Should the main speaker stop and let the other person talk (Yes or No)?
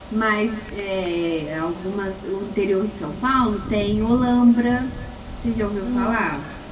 Yes